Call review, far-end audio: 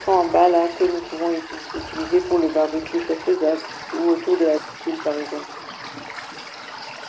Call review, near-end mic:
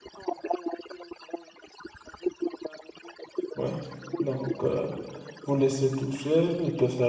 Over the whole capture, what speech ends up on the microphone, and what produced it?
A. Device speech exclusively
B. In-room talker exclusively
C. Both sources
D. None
C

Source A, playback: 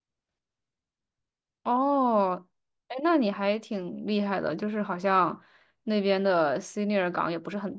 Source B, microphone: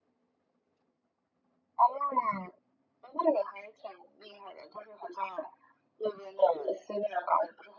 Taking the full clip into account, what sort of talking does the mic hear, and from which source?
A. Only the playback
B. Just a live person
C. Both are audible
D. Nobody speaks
A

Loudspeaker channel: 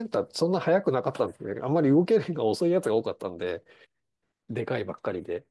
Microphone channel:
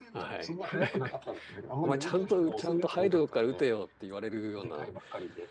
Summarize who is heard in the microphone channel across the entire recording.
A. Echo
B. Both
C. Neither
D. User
B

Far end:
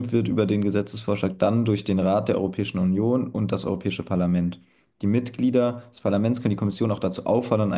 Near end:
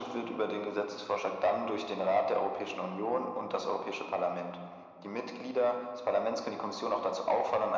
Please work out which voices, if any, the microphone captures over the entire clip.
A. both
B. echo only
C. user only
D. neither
B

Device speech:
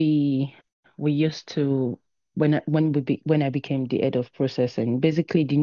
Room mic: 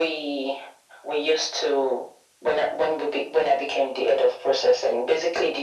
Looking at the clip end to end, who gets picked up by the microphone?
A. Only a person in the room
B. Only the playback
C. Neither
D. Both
B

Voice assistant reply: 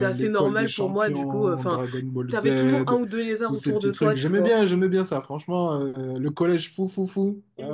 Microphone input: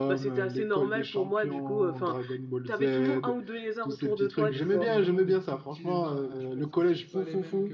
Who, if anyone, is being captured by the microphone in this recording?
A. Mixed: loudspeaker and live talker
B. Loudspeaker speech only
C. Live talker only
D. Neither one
A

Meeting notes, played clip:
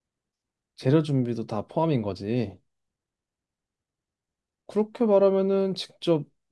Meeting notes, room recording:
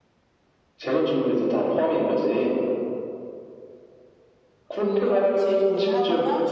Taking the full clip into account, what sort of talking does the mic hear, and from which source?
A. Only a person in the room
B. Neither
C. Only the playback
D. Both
D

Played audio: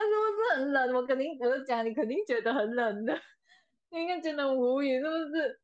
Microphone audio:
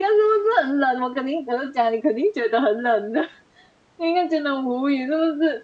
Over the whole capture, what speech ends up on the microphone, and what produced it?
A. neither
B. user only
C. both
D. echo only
D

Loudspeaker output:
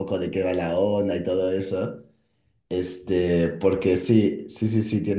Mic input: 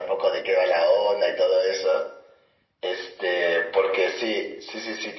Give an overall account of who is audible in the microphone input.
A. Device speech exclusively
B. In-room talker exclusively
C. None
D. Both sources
A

